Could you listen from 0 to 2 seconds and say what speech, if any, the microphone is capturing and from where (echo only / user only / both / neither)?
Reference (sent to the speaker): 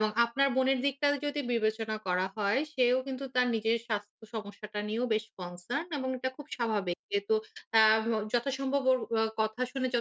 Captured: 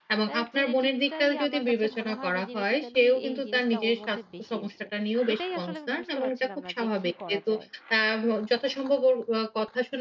both